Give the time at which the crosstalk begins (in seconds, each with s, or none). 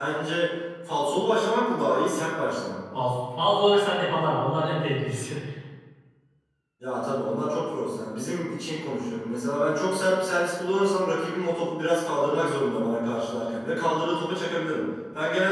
none